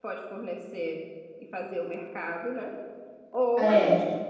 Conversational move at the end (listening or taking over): listening